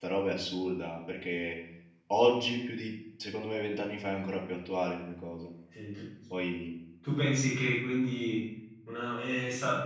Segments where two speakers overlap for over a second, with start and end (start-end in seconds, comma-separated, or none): none